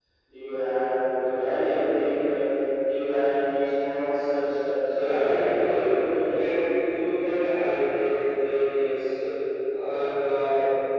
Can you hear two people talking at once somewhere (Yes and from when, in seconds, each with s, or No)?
Yes, from 4.9 s